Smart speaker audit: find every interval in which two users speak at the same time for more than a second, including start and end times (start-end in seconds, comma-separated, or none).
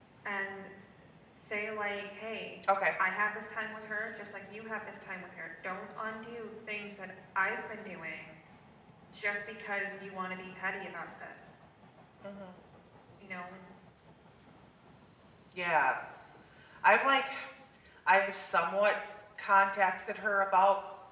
none